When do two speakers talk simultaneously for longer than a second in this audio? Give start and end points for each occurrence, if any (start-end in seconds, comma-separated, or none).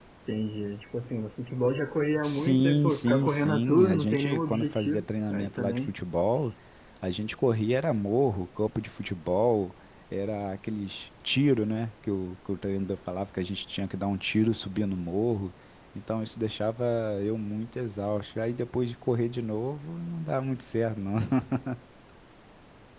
2.2-5.9